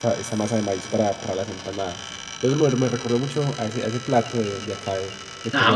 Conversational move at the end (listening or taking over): taking over